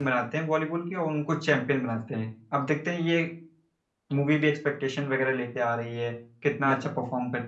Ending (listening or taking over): listening